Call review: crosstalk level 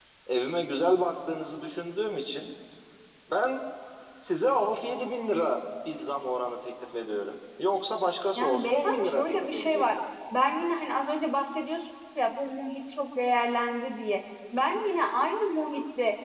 present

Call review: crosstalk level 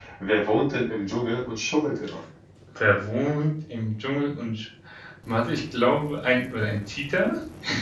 none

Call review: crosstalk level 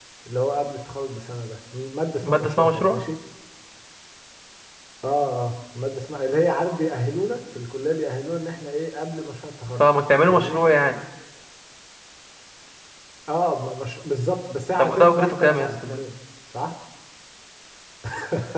present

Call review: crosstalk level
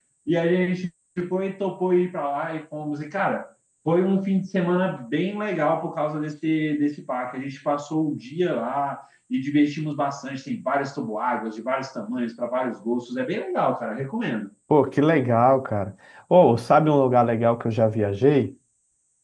none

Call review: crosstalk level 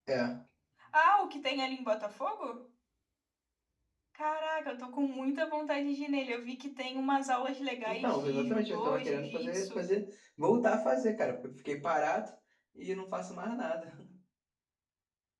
present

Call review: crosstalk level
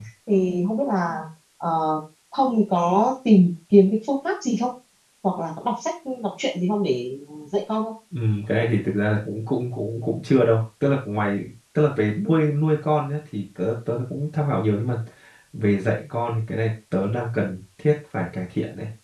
none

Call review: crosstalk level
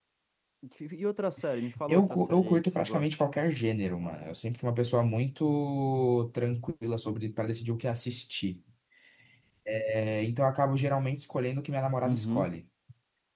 present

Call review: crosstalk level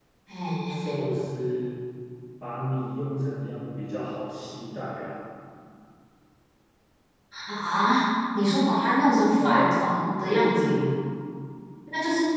present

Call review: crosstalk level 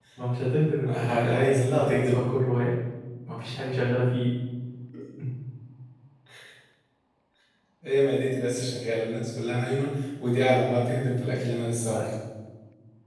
present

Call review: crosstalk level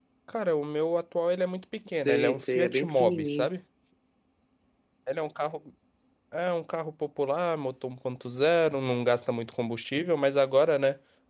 present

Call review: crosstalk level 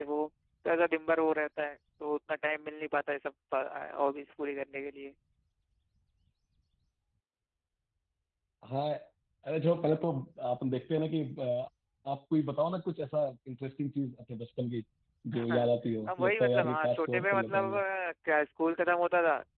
present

